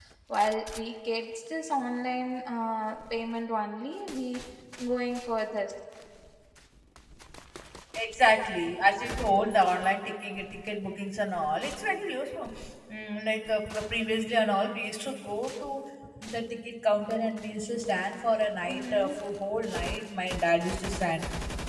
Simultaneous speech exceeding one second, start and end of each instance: none

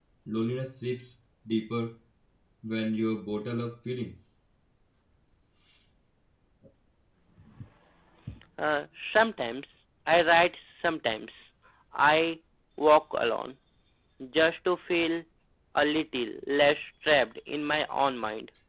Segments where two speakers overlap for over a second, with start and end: none

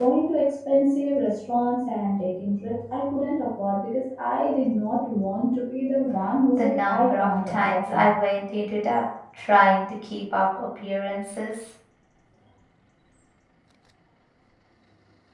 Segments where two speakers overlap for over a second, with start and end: 6.6-8.1

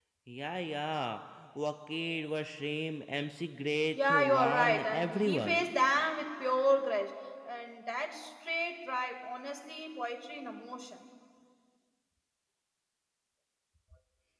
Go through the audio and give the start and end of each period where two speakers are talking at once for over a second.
4.0-5.6

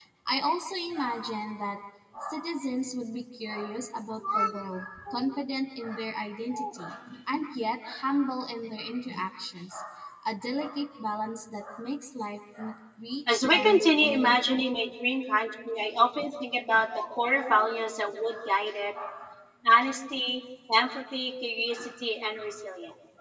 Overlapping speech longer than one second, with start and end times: 13.3-14.6

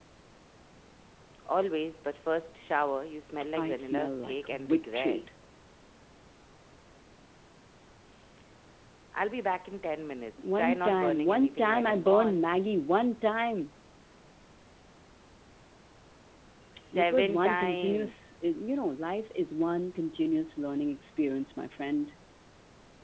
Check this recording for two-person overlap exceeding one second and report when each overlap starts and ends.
3.5-5.2, 10.4-12.5, 16.9-18.3

